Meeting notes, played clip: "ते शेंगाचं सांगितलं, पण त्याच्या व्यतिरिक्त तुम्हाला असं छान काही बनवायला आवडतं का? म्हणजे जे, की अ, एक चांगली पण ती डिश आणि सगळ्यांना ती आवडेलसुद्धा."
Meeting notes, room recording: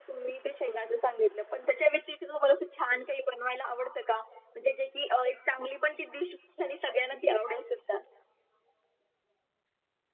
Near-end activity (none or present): none